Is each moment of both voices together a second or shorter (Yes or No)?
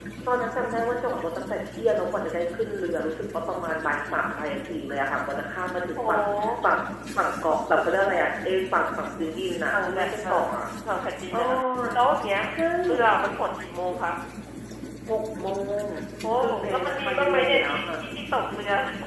No